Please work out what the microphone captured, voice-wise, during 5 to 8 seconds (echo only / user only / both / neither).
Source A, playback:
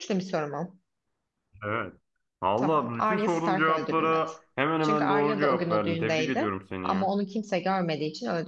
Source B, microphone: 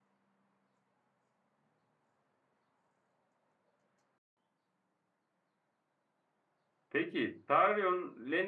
user only